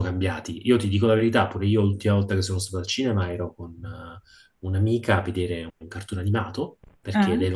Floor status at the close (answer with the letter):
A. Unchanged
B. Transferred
A